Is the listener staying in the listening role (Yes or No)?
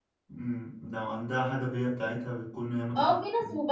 No